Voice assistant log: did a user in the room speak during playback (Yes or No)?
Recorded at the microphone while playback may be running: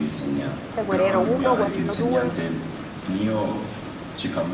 Yes